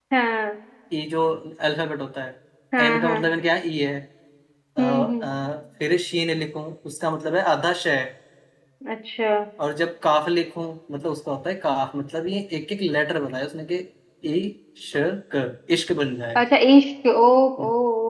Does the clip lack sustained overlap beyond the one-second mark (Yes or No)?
Yes